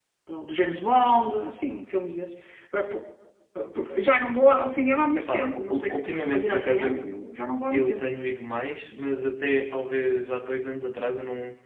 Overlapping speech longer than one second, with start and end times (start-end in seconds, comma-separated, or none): 5.2-7.0